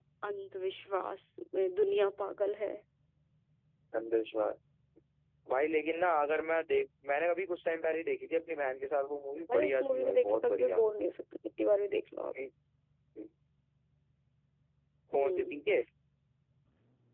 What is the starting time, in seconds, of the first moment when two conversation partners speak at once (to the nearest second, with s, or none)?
9 s